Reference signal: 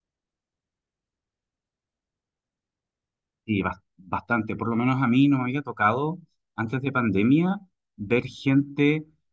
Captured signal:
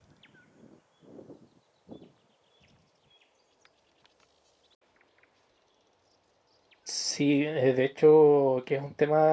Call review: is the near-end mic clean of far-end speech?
Yes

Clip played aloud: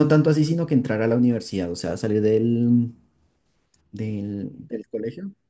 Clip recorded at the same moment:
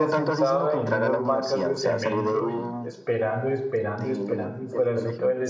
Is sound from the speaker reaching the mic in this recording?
Yes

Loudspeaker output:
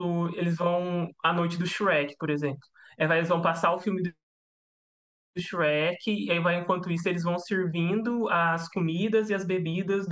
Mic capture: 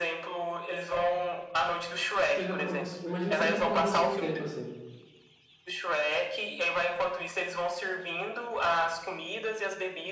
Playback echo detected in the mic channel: Yes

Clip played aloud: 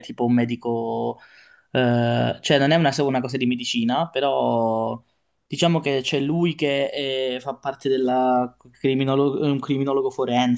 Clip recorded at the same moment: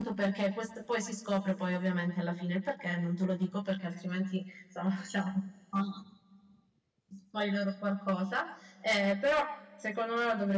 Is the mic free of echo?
Yes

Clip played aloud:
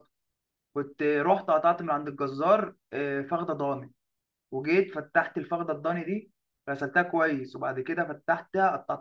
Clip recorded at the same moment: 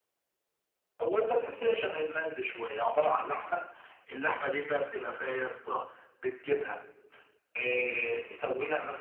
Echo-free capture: Yes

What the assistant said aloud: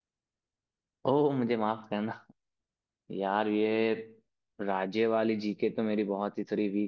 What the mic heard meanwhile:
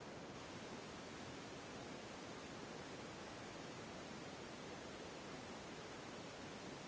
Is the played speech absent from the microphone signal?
Yes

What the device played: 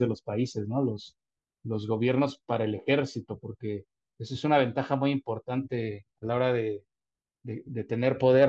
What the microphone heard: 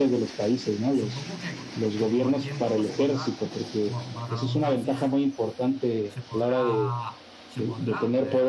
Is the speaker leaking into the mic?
Yes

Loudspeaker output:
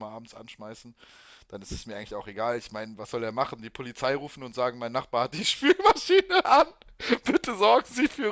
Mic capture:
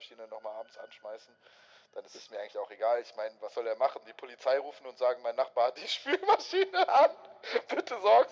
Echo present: Yes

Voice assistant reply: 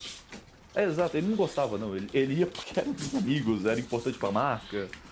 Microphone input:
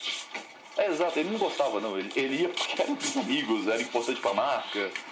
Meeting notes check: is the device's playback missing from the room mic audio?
No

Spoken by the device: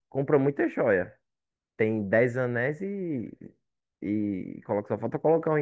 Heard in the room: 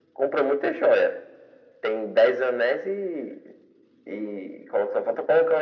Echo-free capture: No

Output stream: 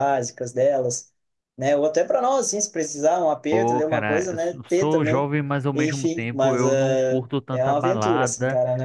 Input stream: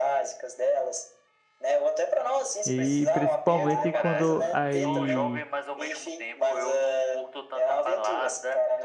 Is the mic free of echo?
No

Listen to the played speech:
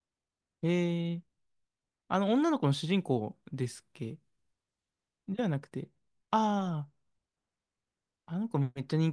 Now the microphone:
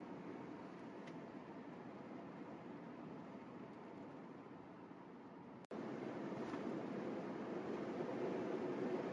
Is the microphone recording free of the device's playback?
Yes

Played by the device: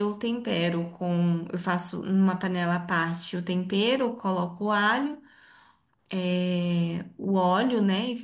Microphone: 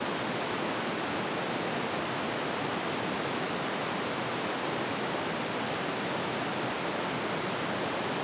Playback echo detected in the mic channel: No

